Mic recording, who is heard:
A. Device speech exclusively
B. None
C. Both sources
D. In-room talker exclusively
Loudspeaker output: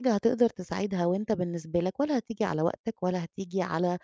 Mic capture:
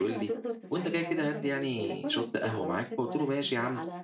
C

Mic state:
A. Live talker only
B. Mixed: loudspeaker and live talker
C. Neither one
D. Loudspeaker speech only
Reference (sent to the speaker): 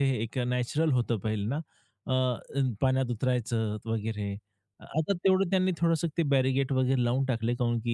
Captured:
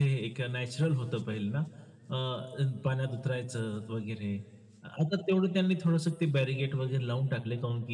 D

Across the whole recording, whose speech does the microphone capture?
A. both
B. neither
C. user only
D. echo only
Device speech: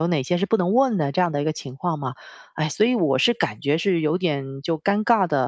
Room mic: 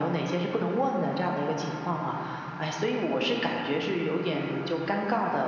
D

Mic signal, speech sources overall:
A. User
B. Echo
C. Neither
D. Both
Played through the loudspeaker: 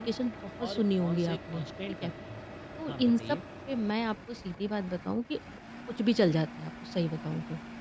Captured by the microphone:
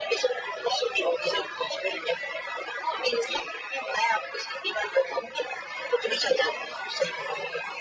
B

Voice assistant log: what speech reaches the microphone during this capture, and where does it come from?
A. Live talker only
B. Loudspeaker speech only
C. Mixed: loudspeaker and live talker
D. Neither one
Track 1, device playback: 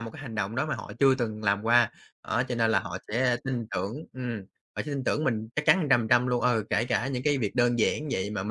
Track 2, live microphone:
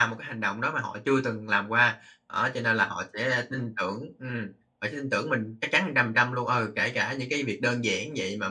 B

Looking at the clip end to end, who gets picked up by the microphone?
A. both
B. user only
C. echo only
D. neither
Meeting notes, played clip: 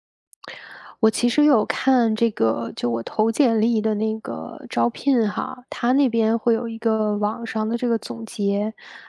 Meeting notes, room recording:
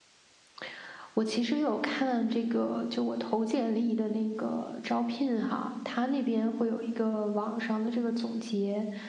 C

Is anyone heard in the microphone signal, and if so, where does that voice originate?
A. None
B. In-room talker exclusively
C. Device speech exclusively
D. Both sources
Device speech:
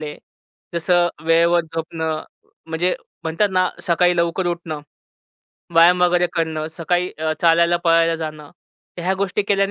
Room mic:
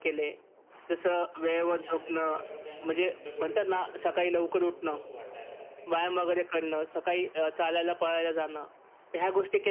D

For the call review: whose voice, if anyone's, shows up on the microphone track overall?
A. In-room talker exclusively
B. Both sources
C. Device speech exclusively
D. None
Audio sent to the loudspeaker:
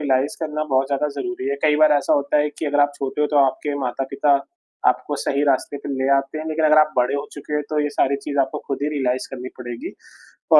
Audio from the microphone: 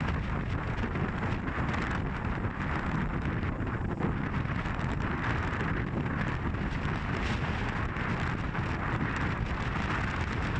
D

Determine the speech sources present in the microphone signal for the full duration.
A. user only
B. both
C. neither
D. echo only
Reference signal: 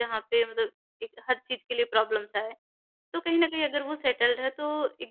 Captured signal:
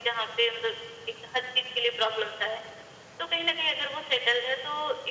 D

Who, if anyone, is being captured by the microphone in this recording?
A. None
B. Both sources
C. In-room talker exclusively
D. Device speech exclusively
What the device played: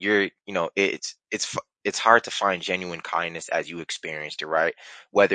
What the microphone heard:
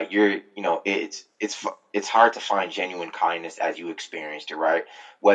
D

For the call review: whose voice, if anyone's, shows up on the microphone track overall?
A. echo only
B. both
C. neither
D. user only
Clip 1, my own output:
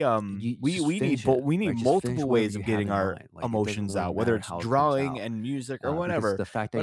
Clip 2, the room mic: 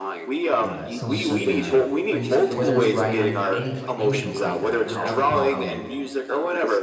B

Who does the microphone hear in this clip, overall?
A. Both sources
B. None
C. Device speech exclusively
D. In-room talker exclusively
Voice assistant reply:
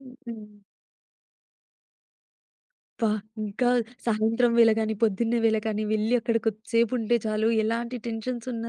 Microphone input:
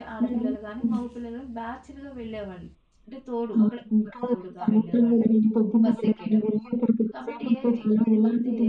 A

